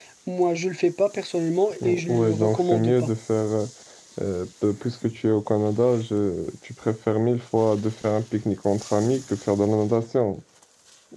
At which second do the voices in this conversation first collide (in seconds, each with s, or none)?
1.8 s